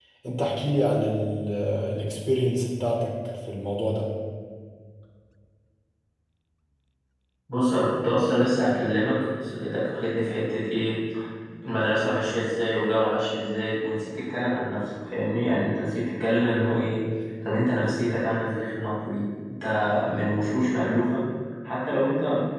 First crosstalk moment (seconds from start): none

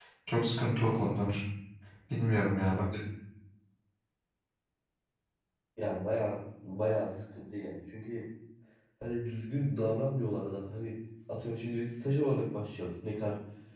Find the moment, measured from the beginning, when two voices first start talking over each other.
none

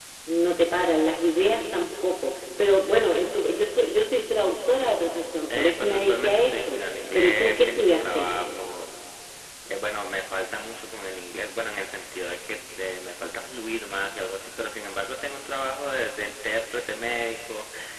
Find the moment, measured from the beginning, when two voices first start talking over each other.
5.5 s

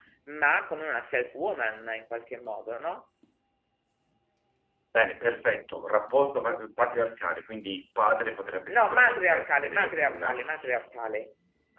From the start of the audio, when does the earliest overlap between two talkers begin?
8.7 s

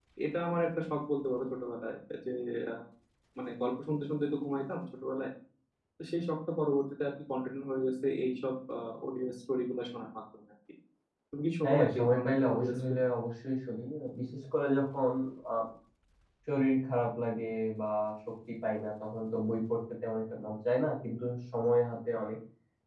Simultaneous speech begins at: 11.6 s

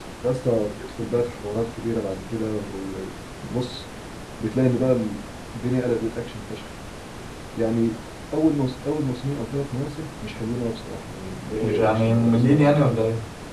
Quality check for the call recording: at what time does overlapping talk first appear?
11.5 s

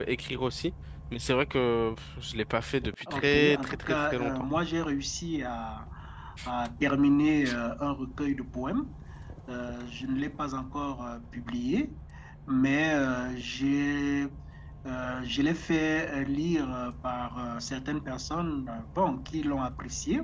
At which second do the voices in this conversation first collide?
3.1 s

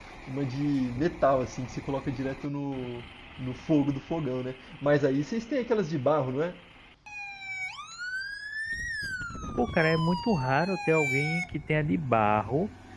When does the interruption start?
none

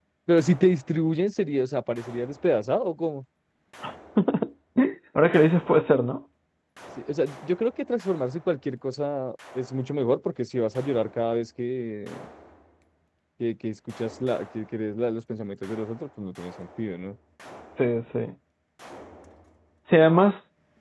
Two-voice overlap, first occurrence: none

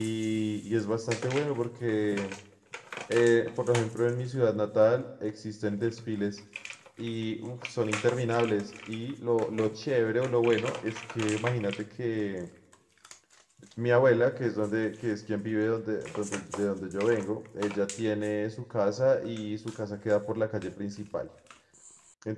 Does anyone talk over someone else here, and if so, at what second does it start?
none

